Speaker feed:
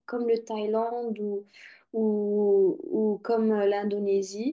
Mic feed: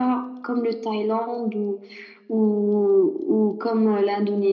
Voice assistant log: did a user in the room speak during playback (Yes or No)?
No